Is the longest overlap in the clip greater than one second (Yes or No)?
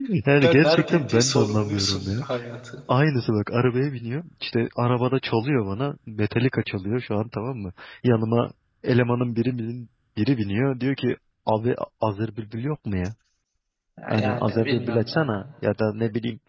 Yes